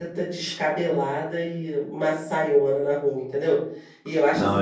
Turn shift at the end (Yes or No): Yes